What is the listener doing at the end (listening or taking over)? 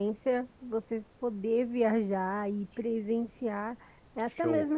listening